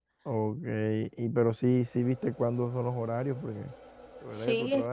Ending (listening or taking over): taking over